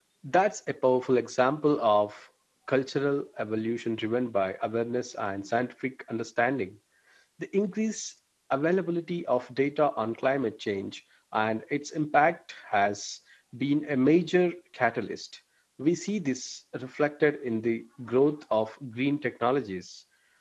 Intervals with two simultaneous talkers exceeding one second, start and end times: none

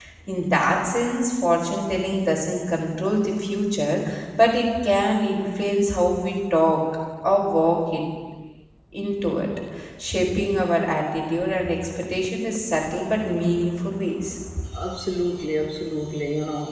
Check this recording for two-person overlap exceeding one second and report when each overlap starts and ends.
none

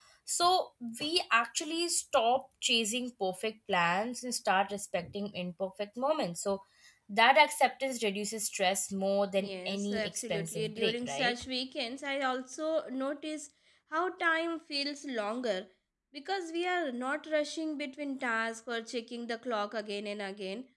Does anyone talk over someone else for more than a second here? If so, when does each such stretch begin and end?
9.4-11.3

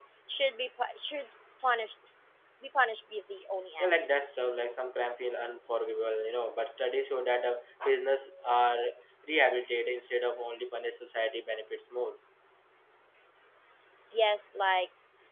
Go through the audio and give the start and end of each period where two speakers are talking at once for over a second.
none

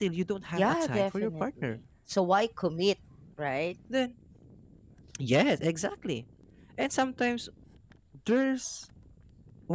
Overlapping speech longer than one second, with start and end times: 0.6-1.8

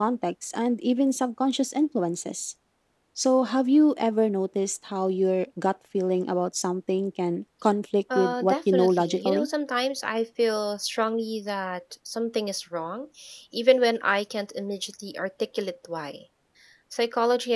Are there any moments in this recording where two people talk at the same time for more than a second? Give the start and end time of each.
8.2-9.5

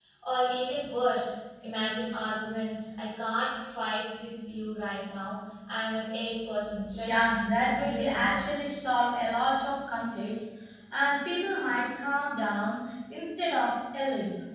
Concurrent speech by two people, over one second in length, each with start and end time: 7.0-8.5

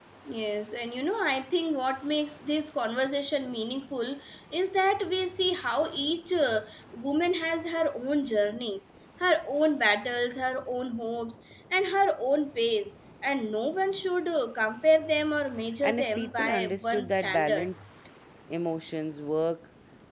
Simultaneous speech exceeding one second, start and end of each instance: 15.8-17.7

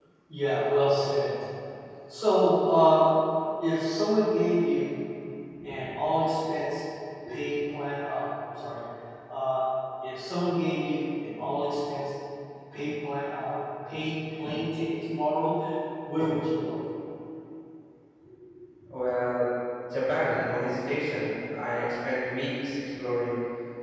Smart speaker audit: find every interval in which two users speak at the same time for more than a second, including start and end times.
none

